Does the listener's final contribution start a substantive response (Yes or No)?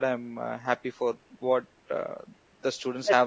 No